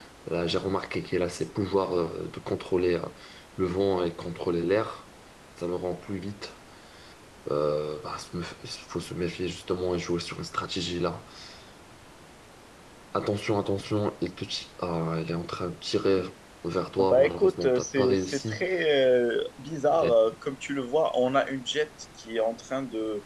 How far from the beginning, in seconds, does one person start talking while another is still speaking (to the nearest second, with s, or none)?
17 s